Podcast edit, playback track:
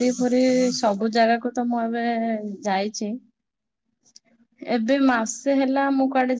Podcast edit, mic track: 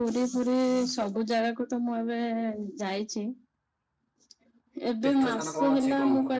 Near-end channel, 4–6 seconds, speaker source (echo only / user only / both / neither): both